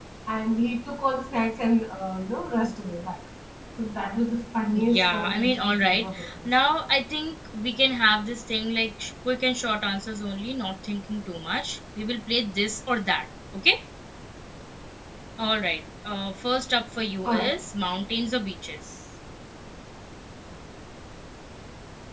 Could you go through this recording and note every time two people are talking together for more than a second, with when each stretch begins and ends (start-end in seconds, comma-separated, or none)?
4.8-6.5